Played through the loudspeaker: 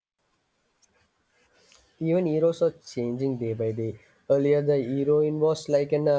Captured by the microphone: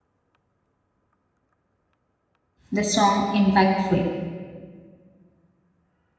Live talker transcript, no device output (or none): the song impactful.